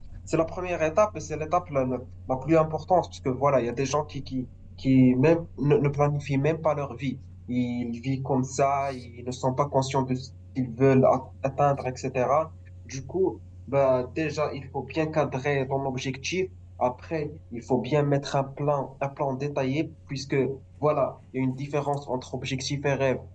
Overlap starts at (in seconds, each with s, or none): none